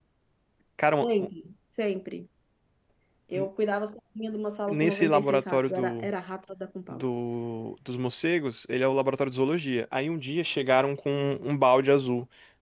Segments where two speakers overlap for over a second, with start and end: 4.7-6.1

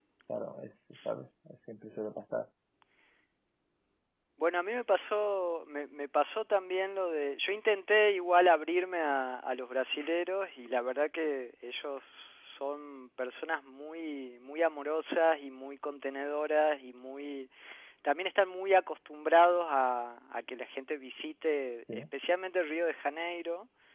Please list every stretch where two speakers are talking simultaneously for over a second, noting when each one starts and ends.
none

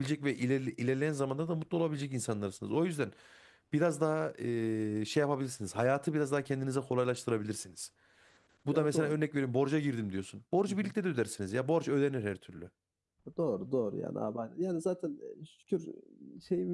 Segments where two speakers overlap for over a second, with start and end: none

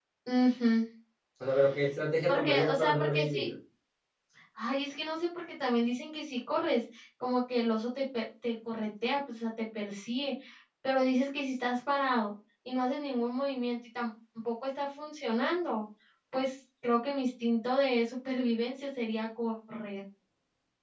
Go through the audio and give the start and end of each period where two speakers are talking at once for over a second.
2.3-3.5

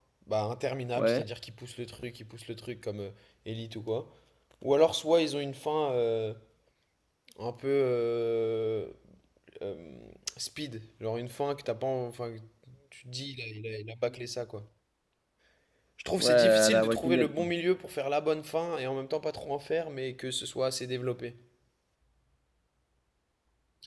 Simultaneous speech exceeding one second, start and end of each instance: 16.2-17.5

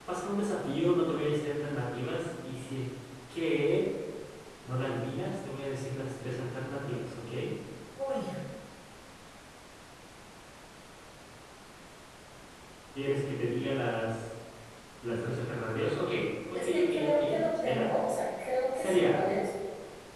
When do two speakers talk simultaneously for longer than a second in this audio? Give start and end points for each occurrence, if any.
16.5-17.9

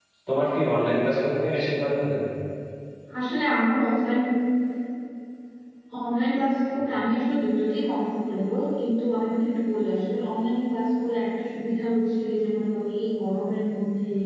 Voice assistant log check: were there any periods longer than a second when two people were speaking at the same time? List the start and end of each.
none

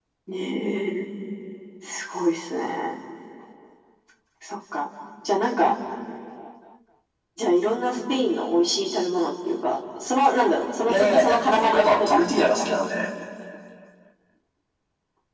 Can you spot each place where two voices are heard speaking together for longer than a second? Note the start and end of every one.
10.9-12.6

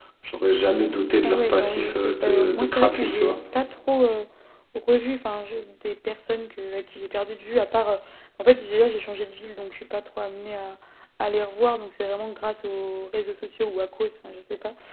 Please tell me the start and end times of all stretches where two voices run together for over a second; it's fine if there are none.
1.2-3.4

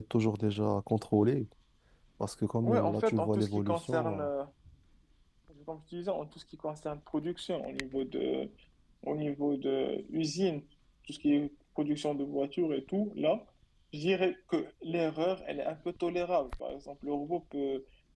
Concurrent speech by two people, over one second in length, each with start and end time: 2.6-4.2

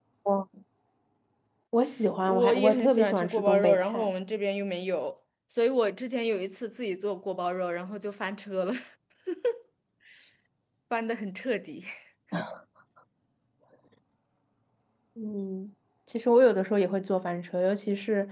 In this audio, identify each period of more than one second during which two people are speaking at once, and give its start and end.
2.2-4.1

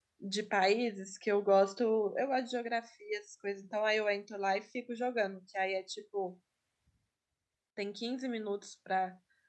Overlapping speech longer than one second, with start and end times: none

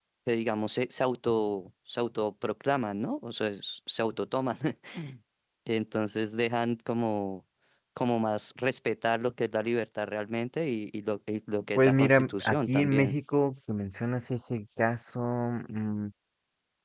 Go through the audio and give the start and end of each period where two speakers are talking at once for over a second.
11.8-13.1

